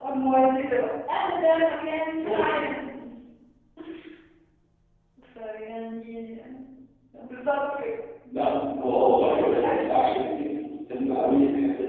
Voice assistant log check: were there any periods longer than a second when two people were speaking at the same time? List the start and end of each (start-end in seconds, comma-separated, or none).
9.2-10.6